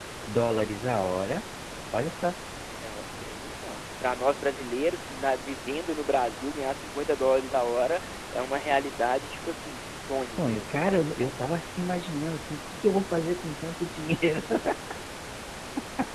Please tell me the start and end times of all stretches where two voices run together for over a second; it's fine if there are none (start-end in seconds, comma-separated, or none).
10.2-11.4